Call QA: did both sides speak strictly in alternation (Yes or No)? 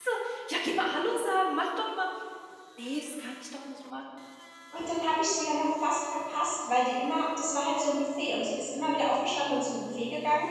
Yes